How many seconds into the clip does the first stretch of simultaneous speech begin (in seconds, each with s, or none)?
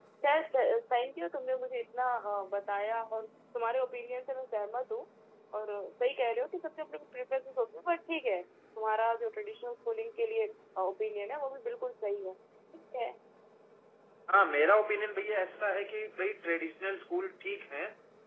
none